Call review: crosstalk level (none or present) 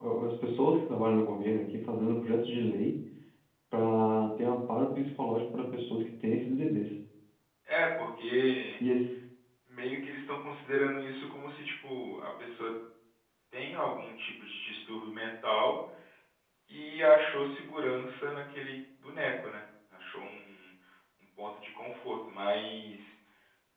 none